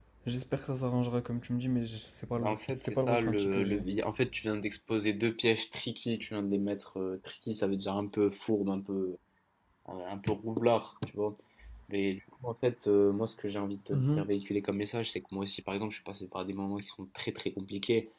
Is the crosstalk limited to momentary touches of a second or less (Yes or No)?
No